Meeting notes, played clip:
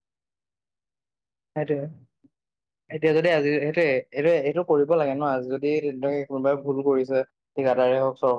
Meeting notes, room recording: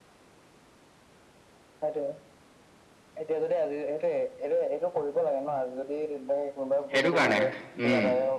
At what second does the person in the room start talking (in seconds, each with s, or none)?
6.9 s